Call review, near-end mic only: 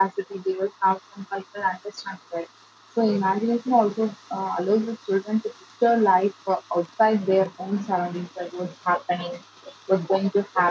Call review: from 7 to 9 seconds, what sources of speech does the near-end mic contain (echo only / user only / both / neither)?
user only